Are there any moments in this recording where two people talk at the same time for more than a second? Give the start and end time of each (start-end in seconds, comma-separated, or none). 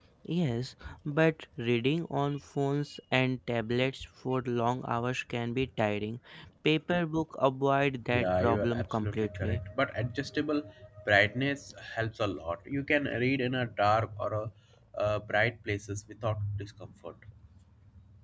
8.1-9.6